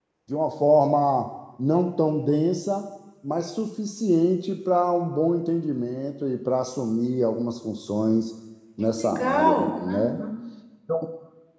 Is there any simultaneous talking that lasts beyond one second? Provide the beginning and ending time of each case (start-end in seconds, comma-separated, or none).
8.9-10.2